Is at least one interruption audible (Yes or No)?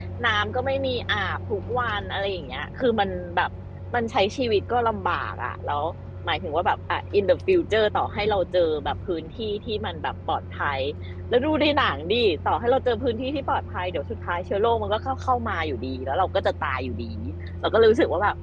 No